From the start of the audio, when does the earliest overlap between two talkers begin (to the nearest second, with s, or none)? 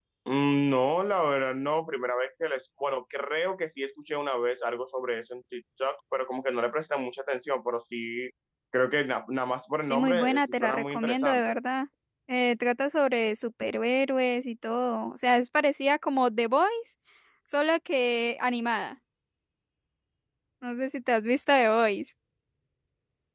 10 s